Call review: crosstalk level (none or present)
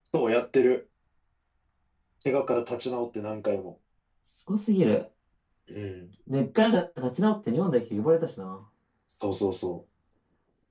none